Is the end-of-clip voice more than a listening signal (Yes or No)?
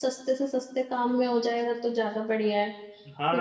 Yes